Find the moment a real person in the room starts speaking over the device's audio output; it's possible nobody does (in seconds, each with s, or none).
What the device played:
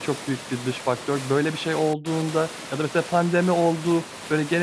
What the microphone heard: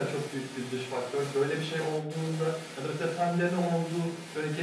none